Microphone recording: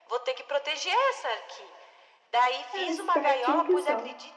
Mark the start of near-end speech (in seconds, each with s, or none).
2.7 s